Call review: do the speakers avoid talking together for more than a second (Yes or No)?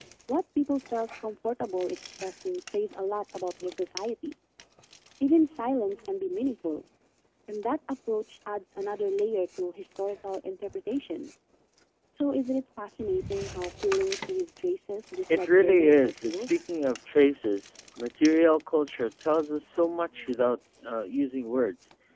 No